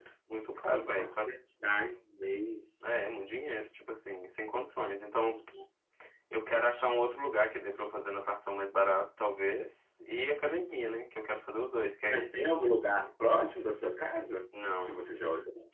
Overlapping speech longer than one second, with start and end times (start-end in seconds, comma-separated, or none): none